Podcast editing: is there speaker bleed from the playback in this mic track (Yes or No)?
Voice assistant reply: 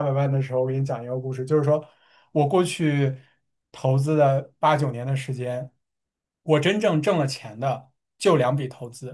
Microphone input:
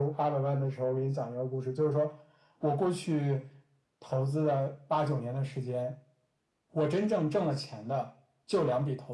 Yes